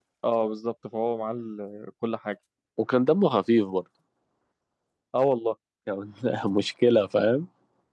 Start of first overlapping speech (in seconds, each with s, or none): none